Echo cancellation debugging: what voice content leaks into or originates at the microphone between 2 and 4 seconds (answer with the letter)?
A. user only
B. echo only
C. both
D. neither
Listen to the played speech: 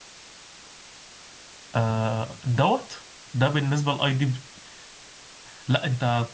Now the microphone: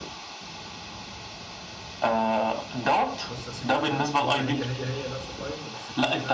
C